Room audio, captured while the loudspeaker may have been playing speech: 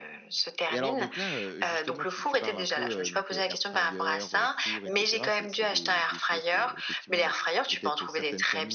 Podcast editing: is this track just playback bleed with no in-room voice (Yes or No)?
No